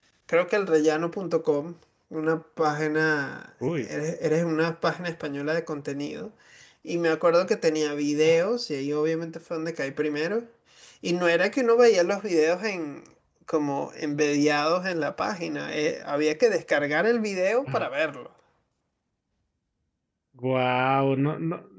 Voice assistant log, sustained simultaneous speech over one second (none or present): none